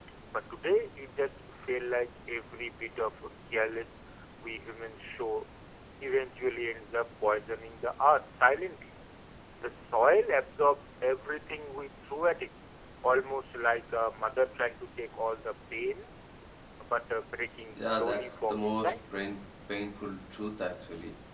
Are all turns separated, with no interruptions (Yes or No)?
No